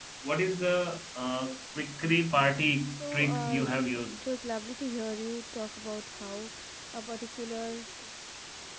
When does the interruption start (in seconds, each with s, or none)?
3.0 s